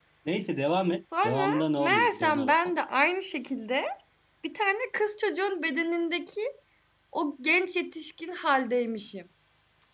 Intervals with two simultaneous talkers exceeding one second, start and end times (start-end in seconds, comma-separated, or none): 1.2-2.8